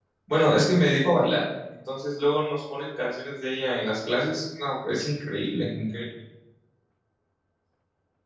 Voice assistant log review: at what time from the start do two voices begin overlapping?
none

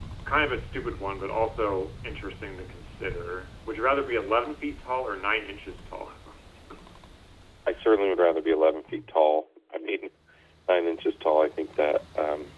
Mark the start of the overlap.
none

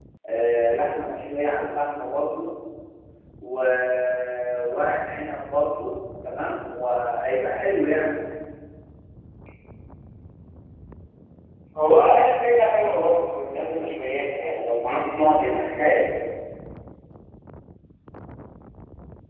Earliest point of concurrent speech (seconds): 14.6 s

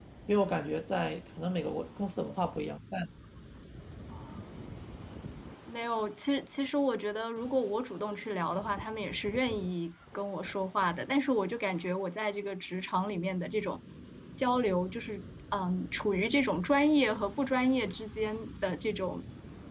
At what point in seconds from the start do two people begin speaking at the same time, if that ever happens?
none

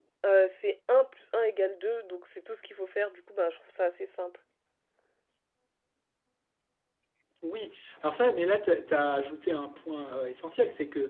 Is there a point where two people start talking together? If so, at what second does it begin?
none

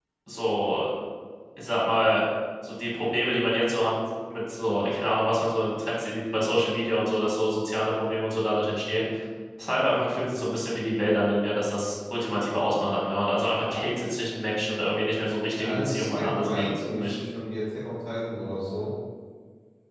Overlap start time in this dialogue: 15.5 s

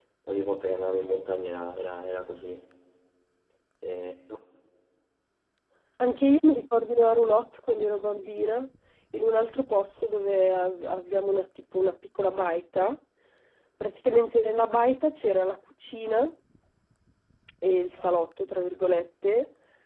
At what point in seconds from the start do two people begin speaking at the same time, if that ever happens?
none

